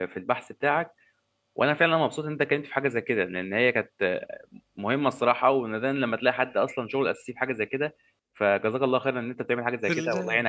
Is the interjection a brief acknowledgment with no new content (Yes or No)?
No